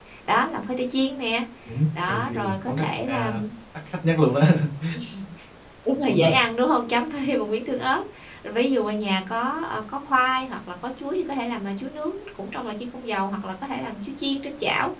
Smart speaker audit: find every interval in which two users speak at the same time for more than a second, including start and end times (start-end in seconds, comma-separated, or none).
2.1-3.3